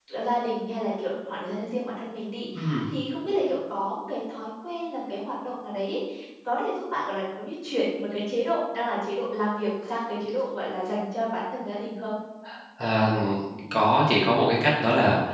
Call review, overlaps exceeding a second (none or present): none